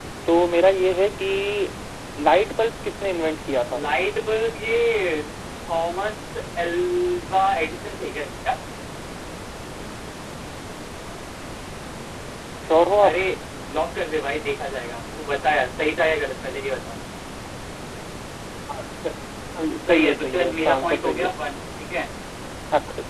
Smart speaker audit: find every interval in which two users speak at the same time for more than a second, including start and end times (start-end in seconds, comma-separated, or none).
19.9-21.3